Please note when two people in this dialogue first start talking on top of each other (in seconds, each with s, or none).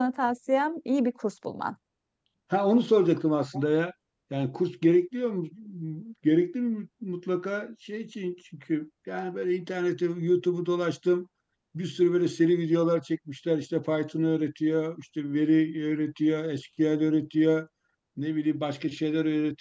none